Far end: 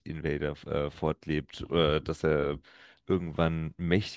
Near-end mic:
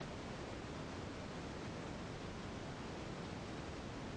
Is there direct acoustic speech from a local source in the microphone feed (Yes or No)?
No